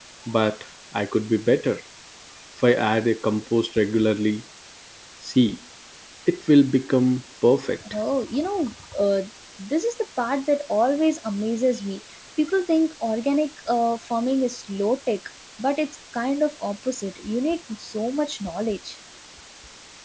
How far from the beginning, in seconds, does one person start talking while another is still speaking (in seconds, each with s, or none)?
none